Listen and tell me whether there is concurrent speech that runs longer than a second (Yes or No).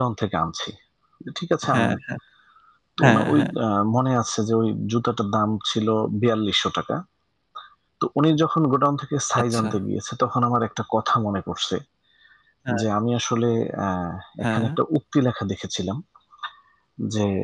No